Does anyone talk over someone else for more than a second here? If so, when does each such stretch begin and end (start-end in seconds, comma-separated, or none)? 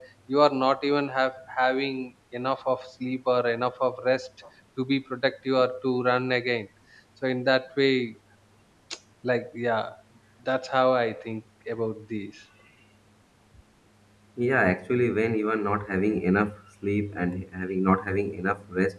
none